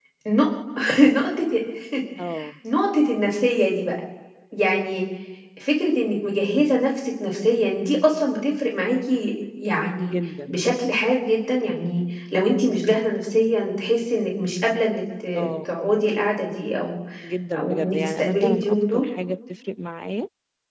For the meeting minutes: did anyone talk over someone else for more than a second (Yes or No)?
Yes